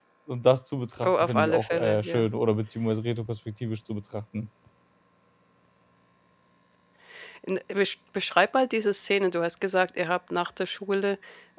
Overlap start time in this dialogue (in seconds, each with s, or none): 1.0 s